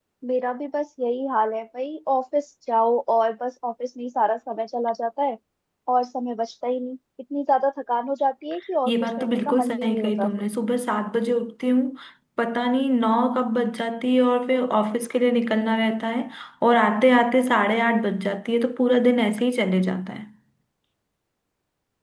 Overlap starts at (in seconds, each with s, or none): 8.9 s